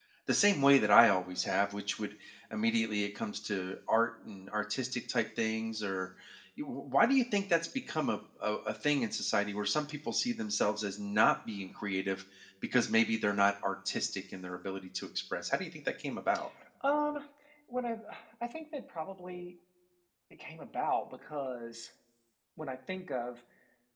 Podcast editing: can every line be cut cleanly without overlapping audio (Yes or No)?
Yes